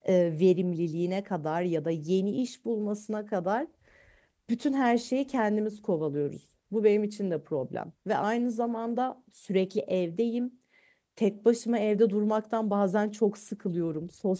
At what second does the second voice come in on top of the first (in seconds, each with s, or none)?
none